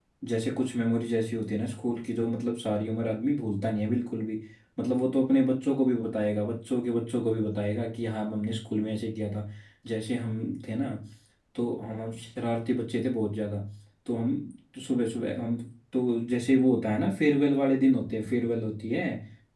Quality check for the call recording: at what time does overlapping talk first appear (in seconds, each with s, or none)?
none